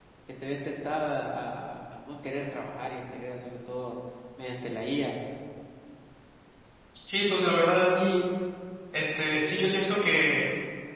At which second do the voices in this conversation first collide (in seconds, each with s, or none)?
none